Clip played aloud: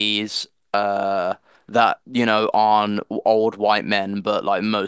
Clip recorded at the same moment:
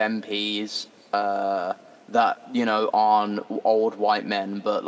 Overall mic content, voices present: echo only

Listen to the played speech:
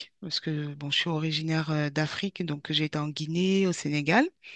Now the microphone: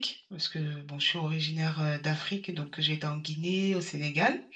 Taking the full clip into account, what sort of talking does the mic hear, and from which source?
echo only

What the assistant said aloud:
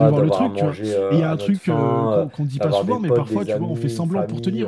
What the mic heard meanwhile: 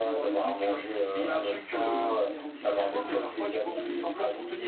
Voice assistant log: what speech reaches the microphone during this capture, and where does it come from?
both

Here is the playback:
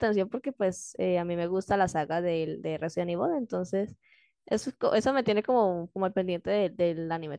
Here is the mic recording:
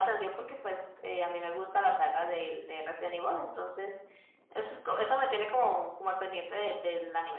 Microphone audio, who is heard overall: echo only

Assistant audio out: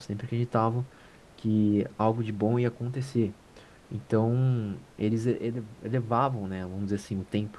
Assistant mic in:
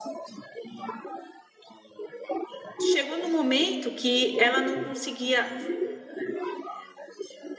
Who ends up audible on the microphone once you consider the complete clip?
both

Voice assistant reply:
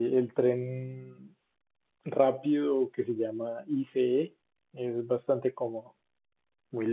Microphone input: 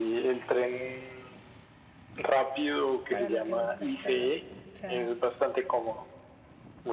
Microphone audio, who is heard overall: both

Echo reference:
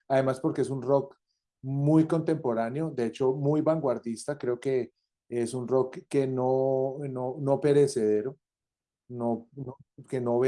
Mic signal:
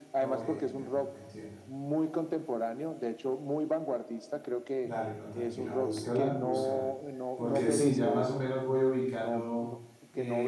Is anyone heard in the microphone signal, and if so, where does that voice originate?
both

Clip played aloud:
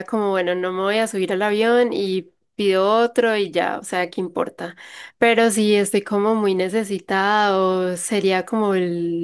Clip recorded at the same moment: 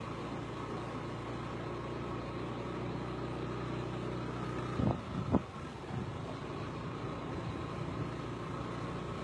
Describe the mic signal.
neither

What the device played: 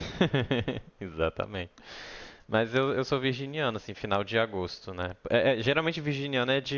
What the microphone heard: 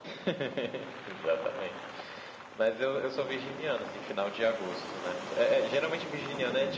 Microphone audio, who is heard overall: echo only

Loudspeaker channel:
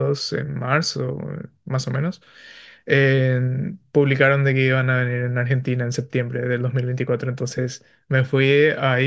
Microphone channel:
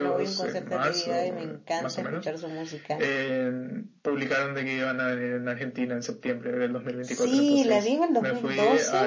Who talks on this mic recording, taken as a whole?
both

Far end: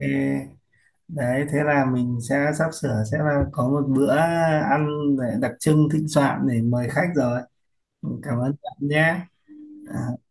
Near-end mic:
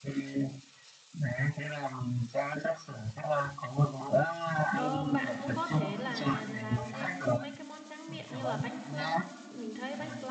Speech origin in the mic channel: both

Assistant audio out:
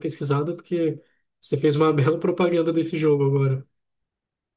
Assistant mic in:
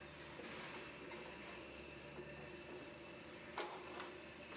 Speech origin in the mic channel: neither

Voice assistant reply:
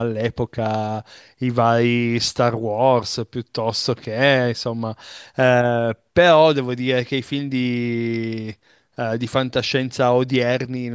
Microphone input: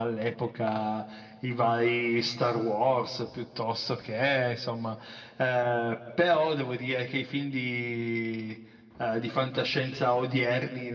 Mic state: echo only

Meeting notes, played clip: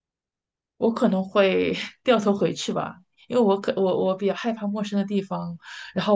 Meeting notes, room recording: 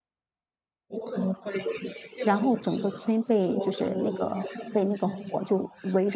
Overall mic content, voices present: both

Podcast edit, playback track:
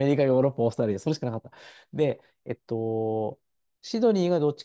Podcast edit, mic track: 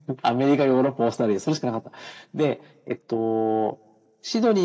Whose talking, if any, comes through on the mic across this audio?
echo only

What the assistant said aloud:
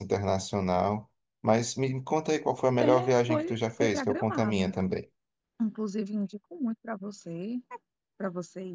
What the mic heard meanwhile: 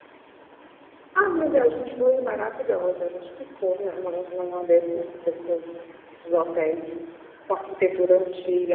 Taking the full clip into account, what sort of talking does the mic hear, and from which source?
user only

